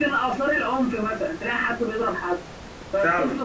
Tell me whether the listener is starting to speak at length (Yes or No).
No